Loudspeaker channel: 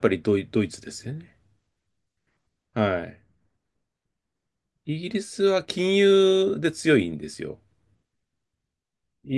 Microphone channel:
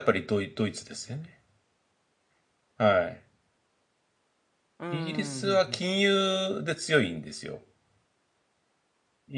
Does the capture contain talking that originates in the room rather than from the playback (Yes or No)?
Yes